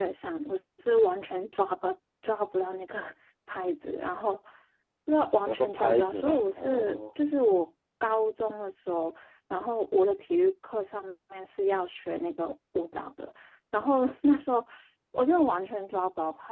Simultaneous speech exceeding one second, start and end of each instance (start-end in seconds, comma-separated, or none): 5.5-7.0